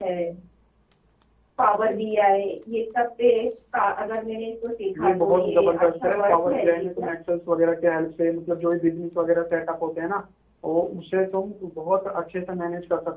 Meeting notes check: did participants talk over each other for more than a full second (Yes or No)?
Yes